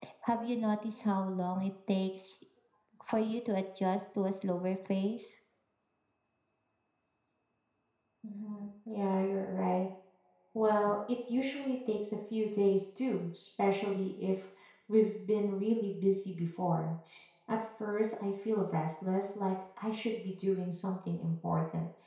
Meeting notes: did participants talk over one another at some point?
No

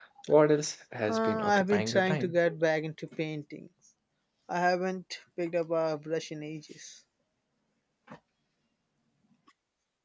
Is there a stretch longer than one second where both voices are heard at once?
Yes, from 1.1 s

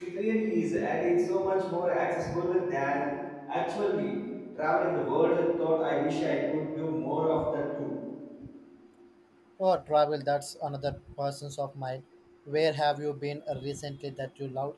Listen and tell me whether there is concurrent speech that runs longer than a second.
No

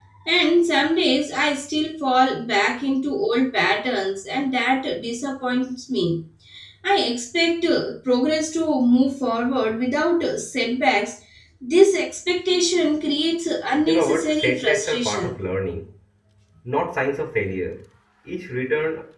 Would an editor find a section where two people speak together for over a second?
Yes, from 13.9 s

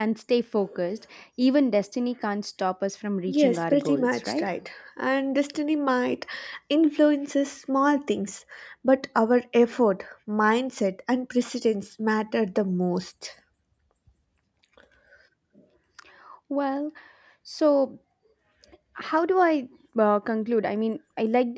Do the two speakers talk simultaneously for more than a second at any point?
Yes, from 3.3 s

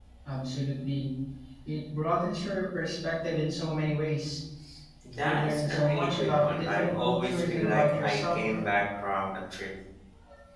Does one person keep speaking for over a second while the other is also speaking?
Yes, from 5.2 s

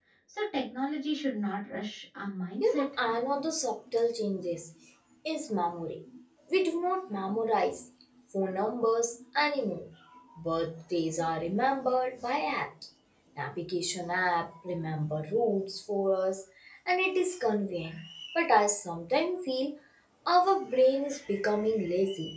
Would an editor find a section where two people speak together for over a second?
No

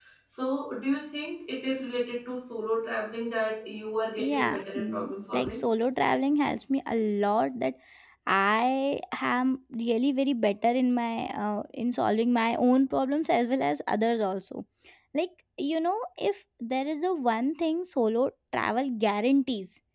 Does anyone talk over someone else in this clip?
Yes, from 4.2 s

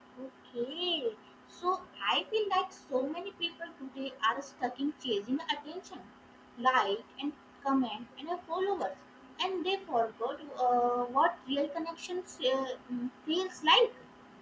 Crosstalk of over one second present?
No

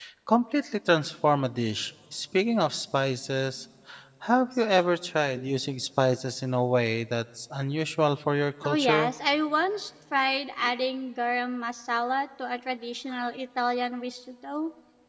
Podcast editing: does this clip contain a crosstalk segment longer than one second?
No

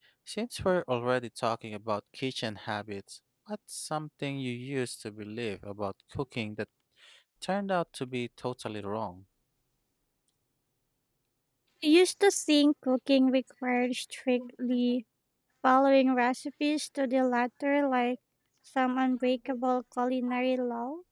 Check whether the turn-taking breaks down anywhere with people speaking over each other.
No

